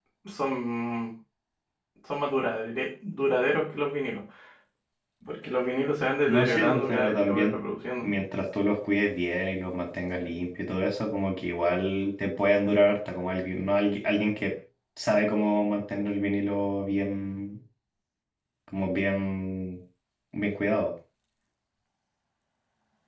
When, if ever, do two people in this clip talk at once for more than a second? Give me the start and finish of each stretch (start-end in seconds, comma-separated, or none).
6.2-7.5